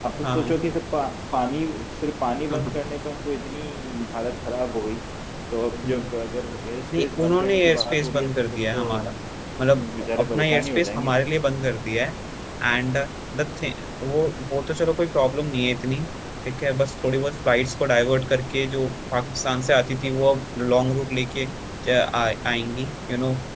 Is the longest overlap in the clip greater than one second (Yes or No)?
Yes